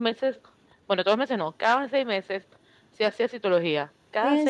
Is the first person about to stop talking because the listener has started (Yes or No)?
Yes